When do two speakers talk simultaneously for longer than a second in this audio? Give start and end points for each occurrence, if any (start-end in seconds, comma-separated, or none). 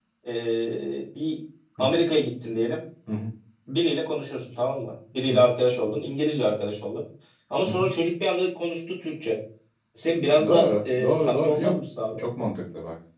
10.4-11.7